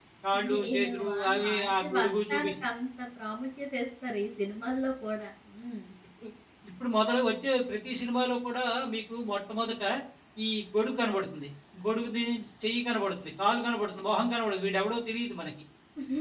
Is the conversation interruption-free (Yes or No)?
No